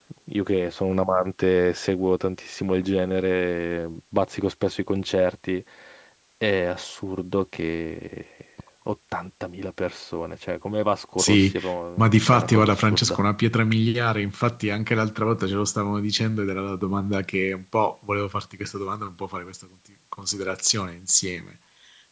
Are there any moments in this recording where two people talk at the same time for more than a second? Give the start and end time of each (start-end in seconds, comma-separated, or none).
12.0-13.2